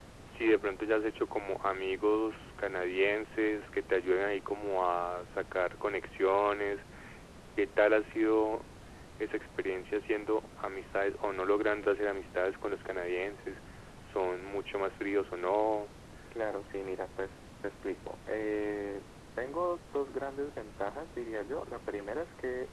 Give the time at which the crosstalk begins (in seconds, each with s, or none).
none